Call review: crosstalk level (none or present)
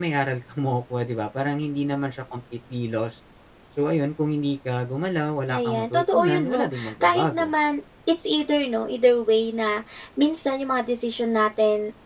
present